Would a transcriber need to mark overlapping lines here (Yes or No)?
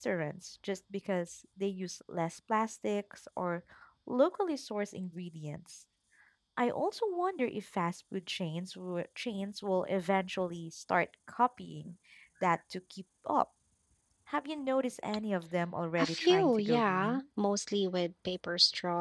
Yes